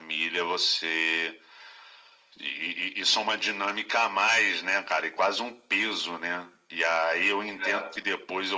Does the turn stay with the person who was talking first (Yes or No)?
Yes